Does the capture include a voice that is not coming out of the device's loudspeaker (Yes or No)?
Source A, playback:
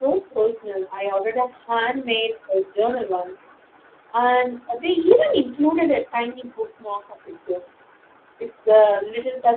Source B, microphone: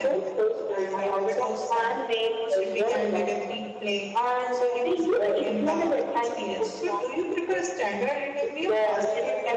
Yes